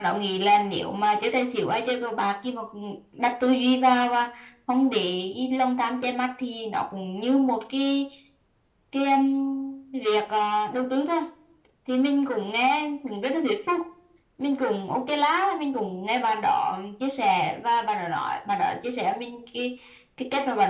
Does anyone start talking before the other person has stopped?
No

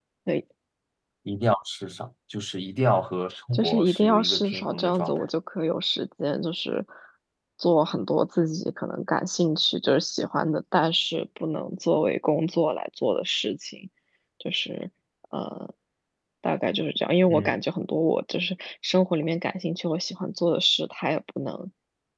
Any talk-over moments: Yes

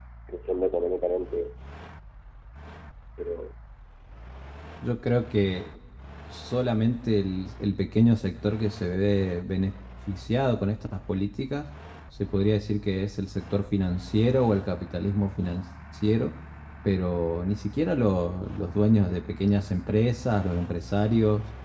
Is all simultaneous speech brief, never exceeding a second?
Yes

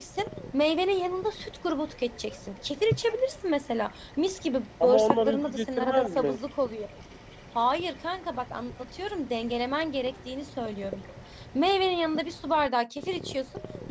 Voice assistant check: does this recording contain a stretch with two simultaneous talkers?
Yes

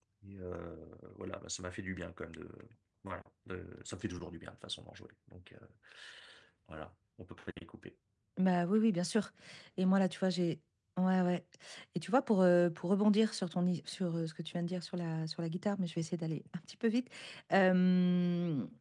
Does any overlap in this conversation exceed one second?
No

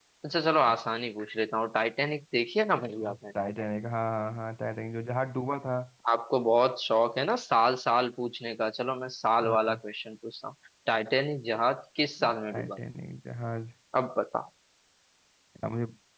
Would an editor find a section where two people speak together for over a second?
No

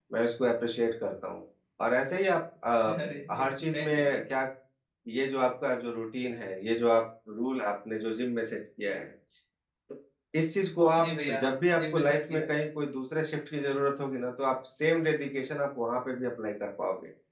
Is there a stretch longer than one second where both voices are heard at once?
Yes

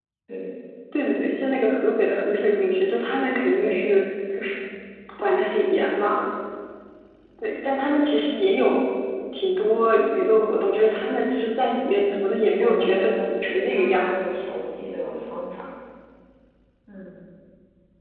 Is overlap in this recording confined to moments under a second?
No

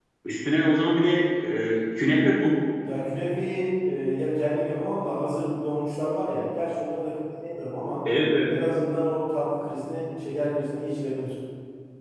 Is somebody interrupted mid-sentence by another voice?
No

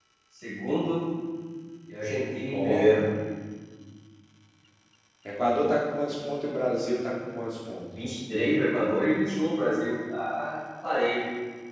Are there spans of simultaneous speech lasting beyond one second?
No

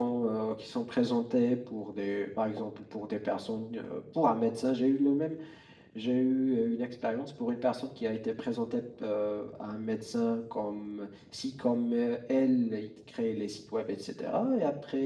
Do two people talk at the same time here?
No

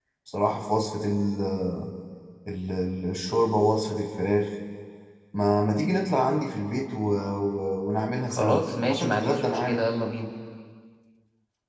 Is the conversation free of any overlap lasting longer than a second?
No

